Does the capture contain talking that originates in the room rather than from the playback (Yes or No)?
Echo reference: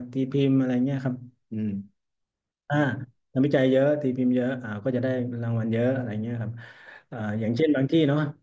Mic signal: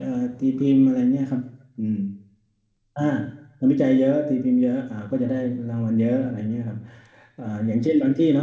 No